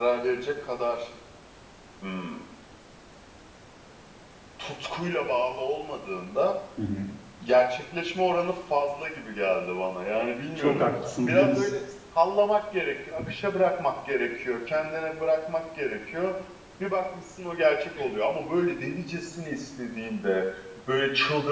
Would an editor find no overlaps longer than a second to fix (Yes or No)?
Yes